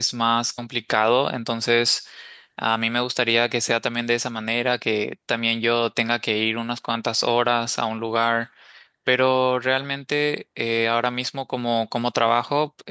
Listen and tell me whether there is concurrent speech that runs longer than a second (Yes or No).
No